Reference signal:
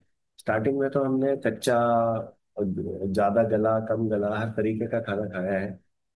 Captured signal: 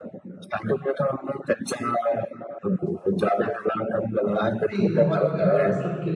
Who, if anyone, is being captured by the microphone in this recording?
both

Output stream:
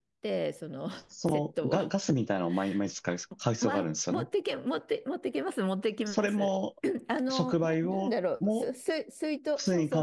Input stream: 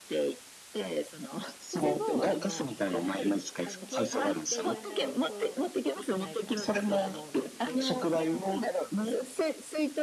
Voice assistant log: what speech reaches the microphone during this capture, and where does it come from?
both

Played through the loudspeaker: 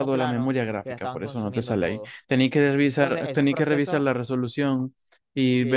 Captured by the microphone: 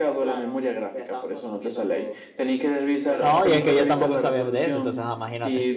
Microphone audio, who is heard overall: both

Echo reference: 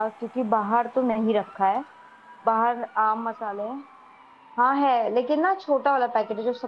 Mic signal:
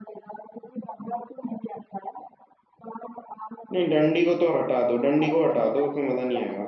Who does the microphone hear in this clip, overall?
both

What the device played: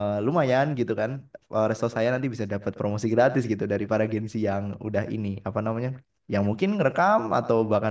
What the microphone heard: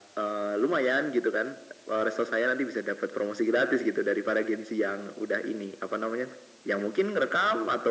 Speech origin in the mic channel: echo only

